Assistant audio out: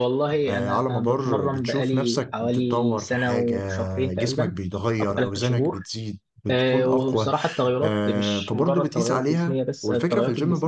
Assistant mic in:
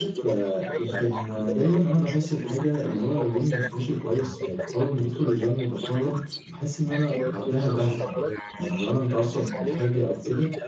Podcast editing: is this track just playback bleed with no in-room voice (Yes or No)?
No